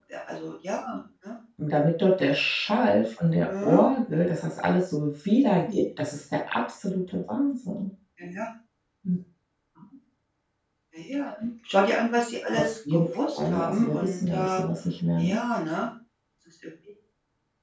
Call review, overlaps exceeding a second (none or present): present